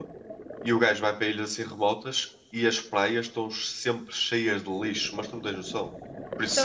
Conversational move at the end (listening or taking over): taking over